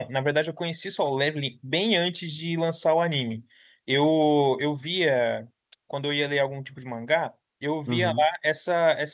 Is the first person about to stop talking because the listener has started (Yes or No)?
No